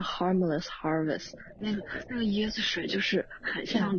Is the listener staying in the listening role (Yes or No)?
Yes